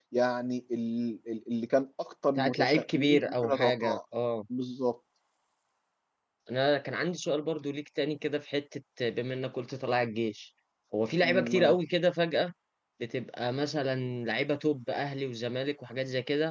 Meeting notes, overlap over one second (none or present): present